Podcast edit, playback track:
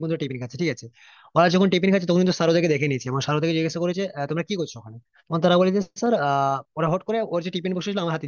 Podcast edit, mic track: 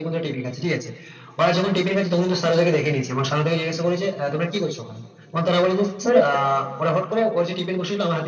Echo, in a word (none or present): present